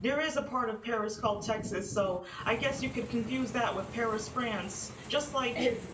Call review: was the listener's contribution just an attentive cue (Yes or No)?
Yes